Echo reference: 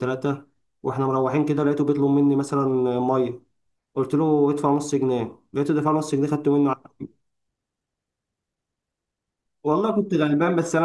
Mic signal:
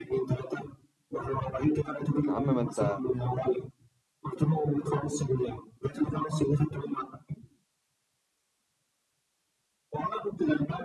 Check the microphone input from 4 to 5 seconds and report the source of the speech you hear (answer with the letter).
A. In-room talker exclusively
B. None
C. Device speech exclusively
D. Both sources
C